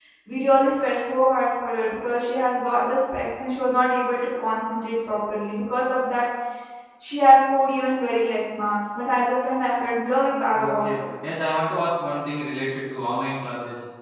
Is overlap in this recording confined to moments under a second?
Yes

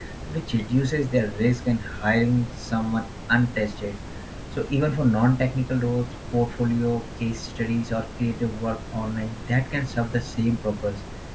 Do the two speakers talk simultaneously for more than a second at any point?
No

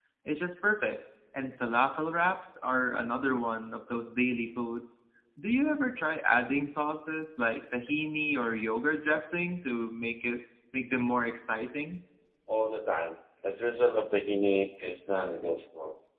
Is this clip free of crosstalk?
Yes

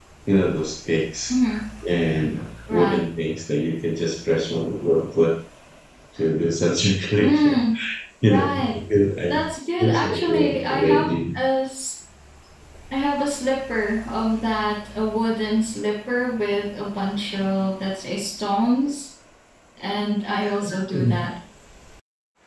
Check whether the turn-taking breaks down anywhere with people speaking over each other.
Yes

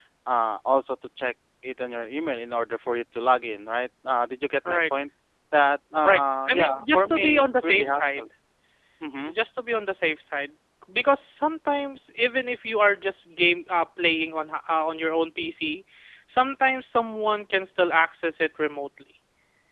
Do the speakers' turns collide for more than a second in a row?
Yes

